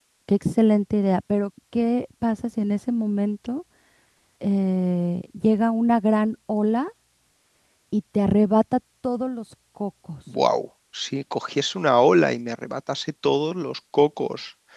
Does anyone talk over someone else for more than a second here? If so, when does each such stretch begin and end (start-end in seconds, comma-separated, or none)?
none